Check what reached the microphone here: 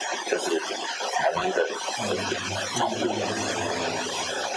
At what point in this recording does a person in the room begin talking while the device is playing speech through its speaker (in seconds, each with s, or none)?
2.0 s